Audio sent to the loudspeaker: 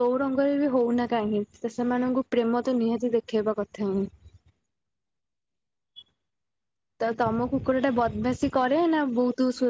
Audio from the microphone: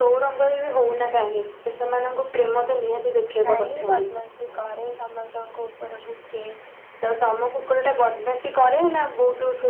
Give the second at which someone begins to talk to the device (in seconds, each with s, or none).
3.4 s